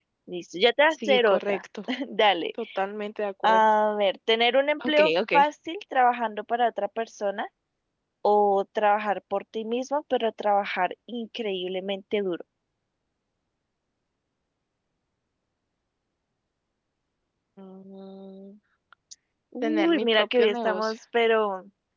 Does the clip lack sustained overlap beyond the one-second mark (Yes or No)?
No